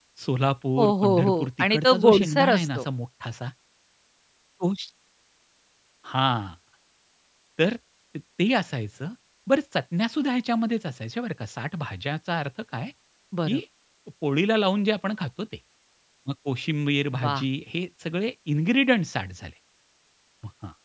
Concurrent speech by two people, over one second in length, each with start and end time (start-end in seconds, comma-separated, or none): 0.8-2.9